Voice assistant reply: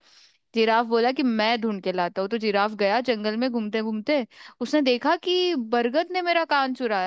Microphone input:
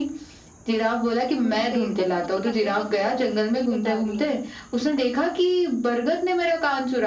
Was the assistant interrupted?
Yes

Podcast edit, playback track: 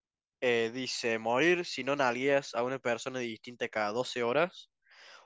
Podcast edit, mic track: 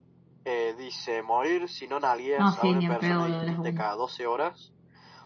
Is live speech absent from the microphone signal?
No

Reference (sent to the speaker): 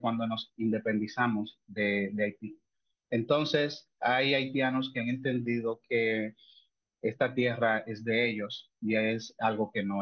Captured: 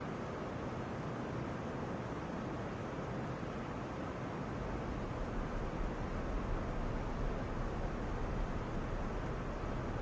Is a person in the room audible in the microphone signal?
No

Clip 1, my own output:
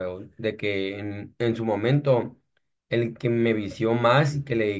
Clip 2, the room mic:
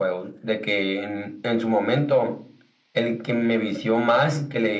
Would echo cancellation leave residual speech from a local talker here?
No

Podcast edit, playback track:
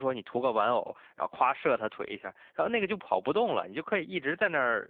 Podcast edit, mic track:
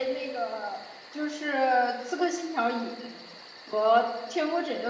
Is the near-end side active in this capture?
Yes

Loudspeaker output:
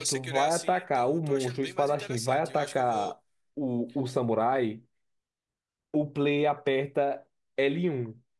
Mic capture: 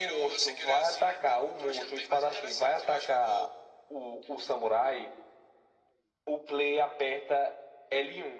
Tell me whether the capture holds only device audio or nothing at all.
Yes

